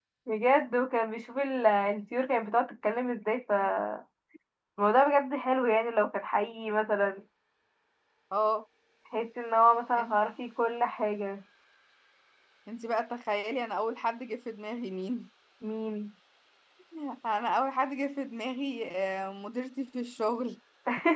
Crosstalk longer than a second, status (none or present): none